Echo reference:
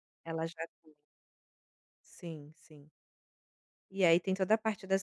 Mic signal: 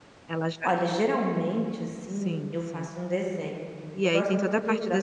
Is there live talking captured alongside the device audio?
Yes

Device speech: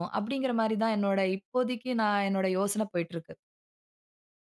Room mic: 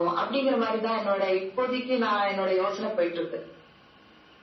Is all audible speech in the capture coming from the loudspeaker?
Yes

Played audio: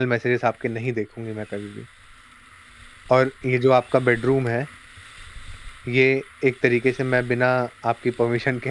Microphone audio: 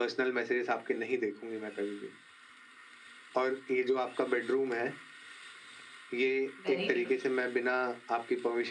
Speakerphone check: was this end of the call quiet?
No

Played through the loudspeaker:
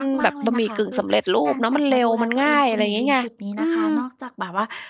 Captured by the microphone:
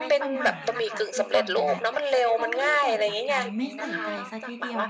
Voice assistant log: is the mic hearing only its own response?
No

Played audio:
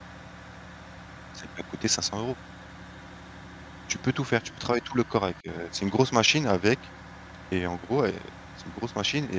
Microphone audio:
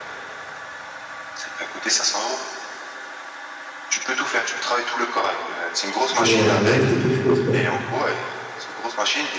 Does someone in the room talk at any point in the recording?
Yes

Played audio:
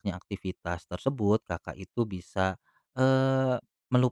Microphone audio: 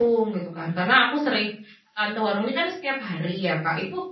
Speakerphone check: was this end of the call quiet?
No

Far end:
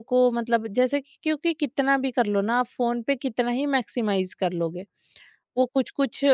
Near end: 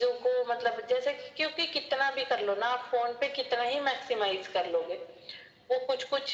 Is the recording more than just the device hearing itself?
No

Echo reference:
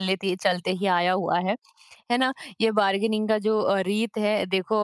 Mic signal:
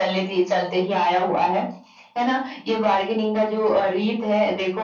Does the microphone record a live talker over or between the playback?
No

